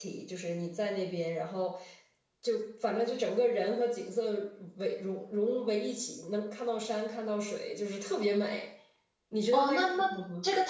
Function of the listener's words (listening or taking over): taking over